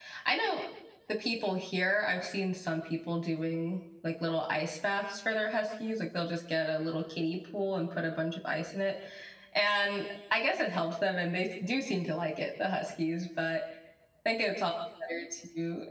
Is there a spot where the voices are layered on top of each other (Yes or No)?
No